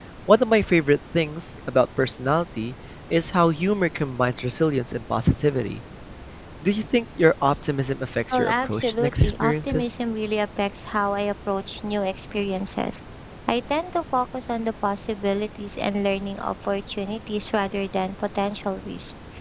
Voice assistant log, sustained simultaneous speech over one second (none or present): present